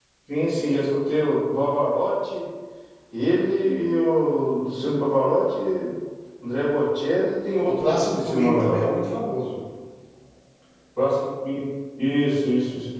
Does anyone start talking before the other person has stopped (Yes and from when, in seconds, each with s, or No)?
Yes, from 7.5 s